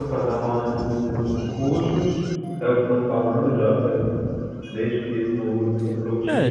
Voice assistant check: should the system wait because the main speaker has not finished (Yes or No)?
No